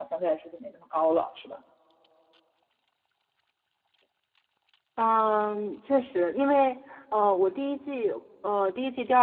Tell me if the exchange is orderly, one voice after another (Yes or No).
Yes